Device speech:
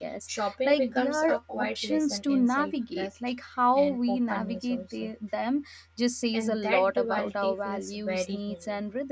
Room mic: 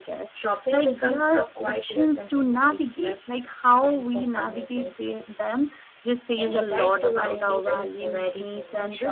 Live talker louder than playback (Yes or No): No